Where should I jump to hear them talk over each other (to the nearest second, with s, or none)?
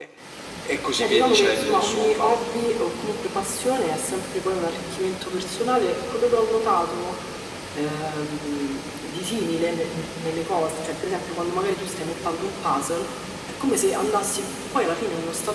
1 s